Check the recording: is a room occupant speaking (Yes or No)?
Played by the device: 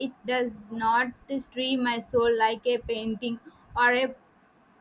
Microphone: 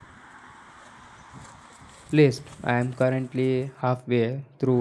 Yes